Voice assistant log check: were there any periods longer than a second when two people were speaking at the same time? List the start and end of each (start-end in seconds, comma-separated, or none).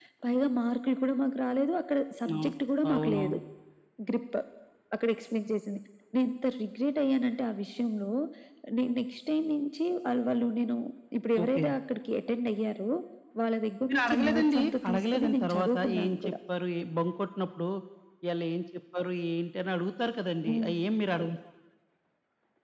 13.9-16.3